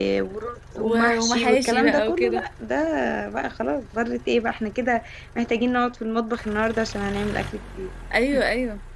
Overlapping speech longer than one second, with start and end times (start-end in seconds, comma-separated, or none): 0.8-2.4